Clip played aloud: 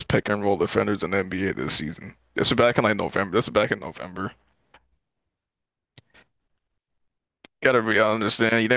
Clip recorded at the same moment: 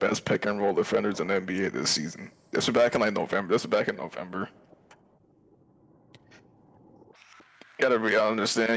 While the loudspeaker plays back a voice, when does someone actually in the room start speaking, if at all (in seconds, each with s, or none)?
none